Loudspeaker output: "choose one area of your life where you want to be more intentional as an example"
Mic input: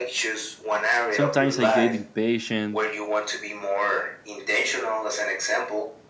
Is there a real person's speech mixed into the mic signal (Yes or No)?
Yes